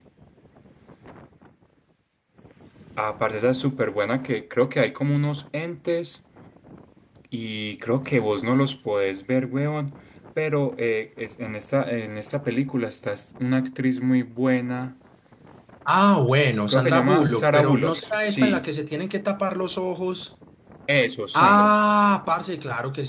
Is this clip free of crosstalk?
No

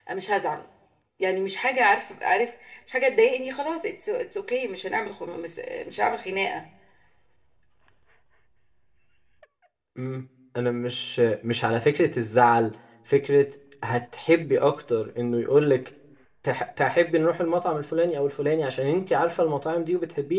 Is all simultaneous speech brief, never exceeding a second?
Yes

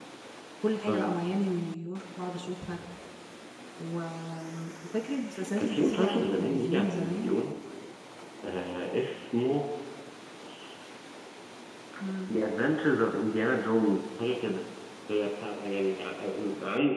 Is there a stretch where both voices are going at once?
Yes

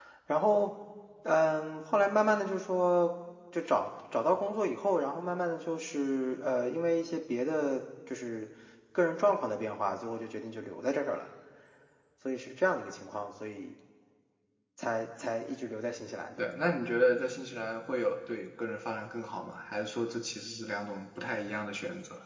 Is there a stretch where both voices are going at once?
No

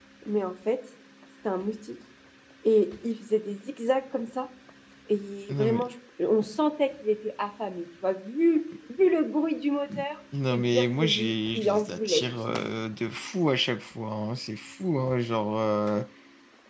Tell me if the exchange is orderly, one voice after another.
No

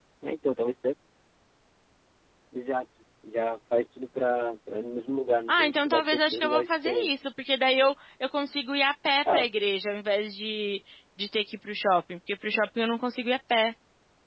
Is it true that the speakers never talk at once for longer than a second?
No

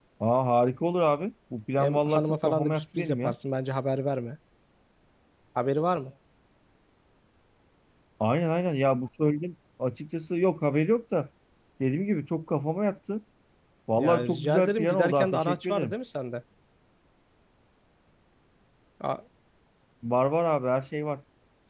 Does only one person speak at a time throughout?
No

